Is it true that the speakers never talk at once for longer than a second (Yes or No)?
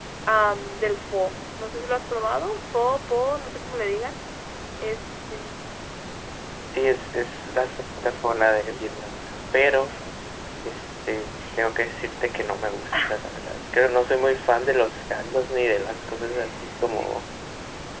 Yes